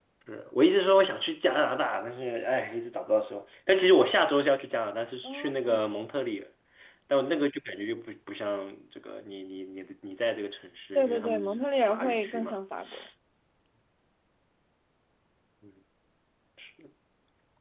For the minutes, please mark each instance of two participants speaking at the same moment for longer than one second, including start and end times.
10.9-12.6

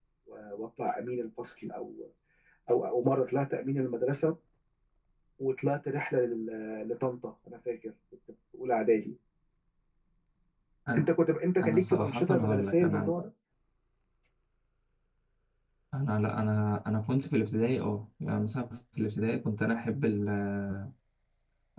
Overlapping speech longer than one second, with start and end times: 11.6-13.1

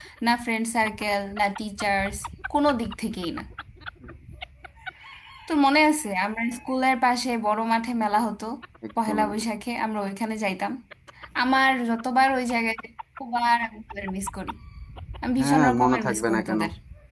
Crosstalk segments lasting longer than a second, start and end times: 15.4-16.6

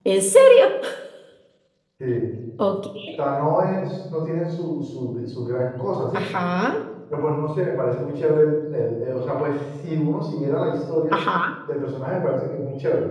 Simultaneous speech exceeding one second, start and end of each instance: none

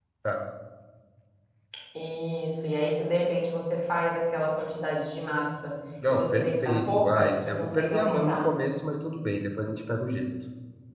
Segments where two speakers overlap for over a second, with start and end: 6.1-8.5

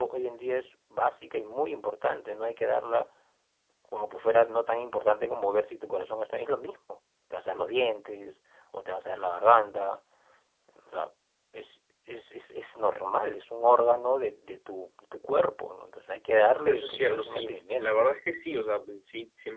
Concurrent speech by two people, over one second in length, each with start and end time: 16.6-17.9

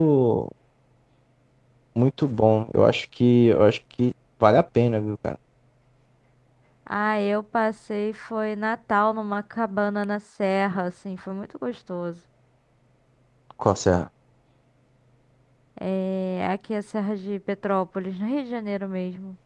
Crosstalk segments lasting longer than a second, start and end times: none

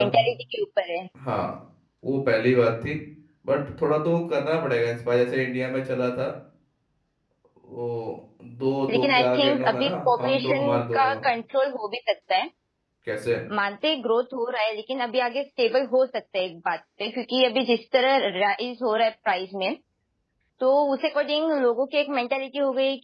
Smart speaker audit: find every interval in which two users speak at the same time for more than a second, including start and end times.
8.9-11.0

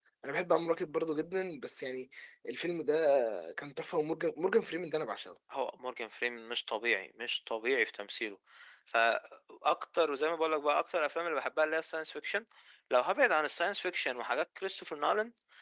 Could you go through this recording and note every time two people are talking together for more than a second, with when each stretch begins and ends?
none

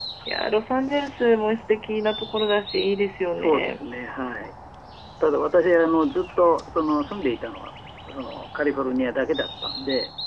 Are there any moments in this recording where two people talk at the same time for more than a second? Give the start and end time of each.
none

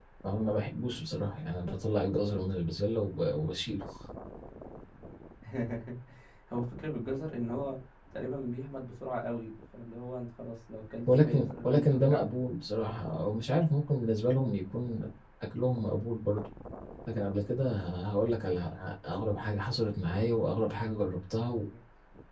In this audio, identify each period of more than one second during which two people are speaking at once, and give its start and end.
11.1-12.3

